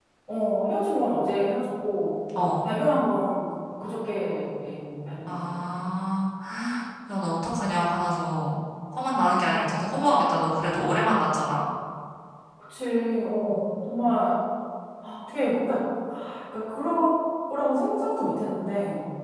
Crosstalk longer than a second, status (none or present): none